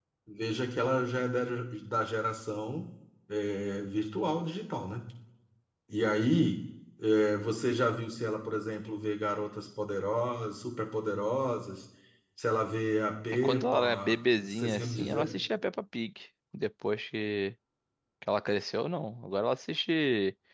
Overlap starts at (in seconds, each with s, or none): 13.4 s